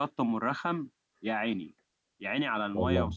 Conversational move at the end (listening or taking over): listening